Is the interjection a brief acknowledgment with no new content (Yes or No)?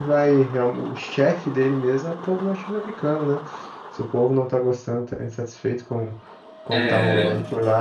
Yes